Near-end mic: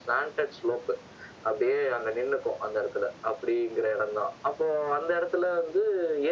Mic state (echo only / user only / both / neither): echo only